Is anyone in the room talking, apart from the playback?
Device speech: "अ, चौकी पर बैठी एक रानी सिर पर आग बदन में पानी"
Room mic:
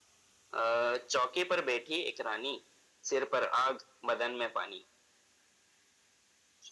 No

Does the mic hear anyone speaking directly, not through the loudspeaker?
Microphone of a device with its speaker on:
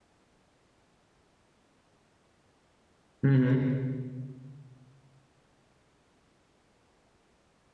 Yes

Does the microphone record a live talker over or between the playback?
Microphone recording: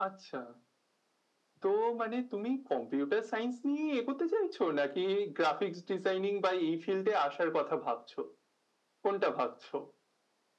No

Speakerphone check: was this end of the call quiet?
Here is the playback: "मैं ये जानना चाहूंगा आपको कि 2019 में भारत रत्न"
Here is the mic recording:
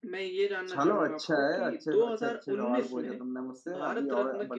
No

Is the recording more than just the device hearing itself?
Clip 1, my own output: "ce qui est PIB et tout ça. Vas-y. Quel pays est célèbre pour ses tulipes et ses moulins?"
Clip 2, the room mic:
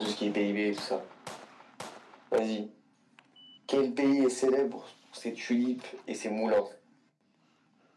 No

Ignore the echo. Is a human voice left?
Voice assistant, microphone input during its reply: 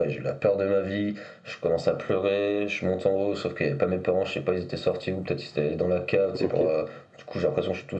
Yes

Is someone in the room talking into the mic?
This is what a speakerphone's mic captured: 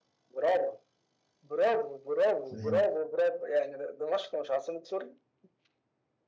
Yes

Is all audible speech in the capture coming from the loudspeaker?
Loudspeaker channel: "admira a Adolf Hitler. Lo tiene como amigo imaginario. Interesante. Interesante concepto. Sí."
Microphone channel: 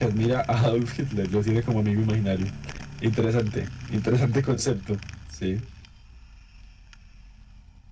Yes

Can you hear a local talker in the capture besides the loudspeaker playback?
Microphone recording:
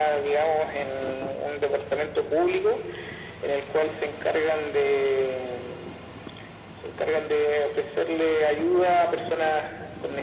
No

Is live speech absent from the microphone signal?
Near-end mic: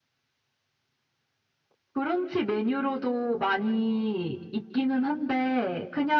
Yes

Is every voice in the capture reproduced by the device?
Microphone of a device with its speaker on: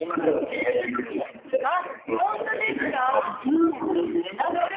No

